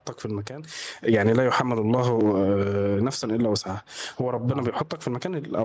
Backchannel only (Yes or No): Yes